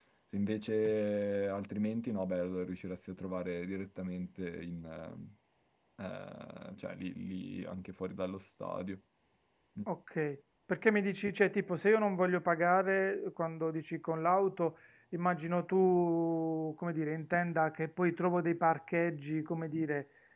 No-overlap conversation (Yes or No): Yes